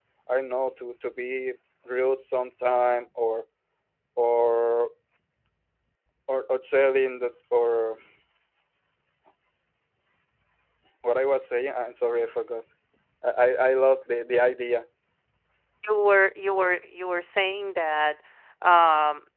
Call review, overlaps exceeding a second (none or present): none